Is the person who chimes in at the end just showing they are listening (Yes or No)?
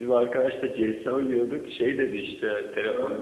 Yes